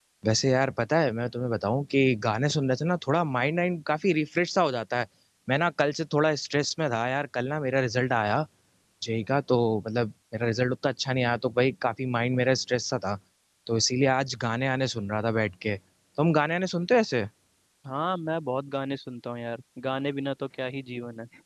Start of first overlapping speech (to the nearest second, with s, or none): none